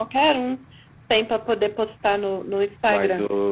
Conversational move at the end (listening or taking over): taking over